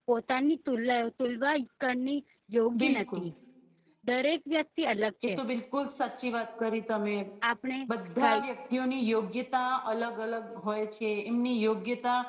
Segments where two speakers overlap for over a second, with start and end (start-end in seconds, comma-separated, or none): none